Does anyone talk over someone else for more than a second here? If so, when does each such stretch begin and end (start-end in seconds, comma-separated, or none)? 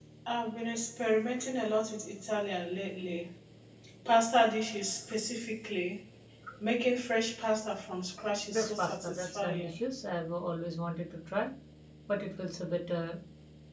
8.5-9.7